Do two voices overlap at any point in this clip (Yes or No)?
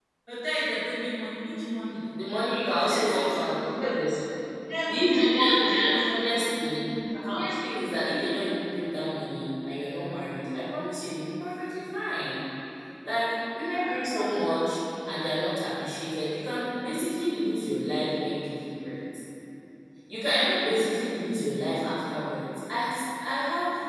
Yes